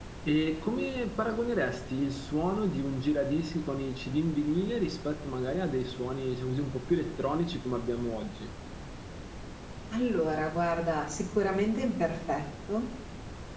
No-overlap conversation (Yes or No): Yes